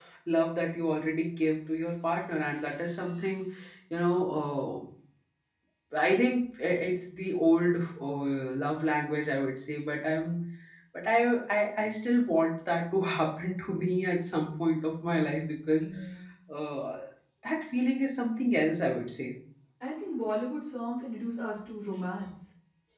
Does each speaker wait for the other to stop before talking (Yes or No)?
Yes